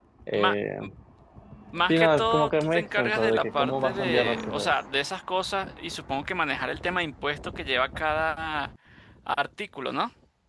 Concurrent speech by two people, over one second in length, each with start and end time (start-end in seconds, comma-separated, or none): 1.9-4.7